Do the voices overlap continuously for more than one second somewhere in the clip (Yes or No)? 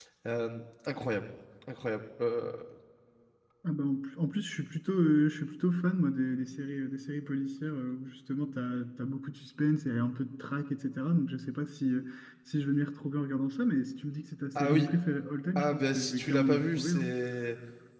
Yes